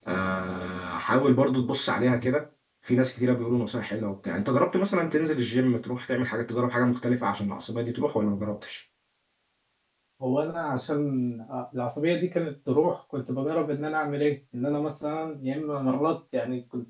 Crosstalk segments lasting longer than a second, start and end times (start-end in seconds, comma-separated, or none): none